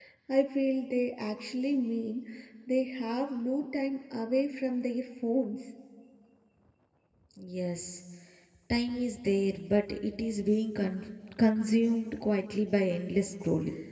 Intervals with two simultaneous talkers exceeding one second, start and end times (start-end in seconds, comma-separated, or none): none